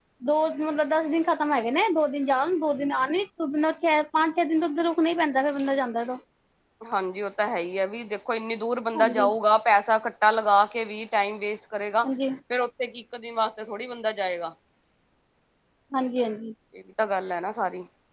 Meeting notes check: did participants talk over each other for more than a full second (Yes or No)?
No